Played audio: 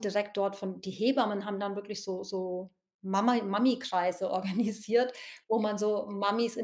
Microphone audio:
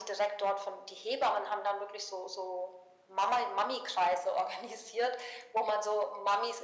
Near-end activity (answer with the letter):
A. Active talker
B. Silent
B